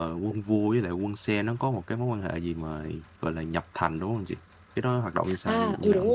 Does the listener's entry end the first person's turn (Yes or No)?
Yes